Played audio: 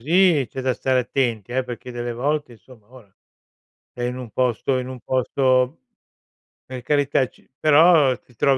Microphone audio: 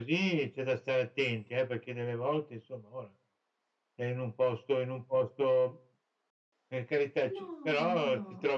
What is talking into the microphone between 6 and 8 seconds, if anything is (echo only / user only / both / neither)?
both